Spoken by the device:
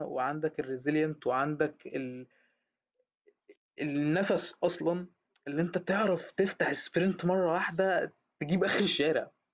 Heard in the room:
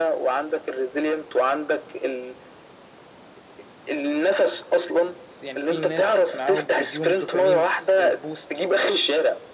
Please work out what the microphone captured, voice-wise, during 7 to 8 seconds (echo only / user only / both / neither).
both